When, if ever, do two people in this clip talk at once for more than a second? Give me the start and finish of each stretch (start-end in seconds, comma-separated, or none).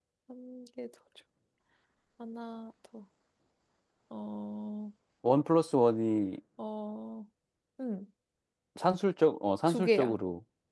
none